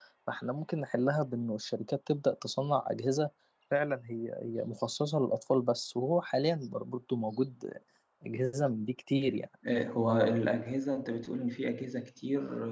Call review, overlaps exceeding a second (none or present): none